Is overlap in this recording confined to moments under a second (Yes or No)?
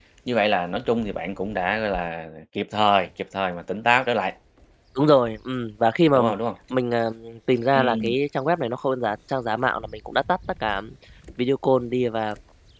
Yes